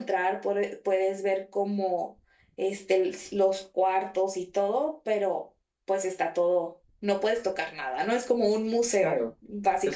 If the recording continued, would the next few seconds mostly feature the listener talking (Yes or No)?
Yes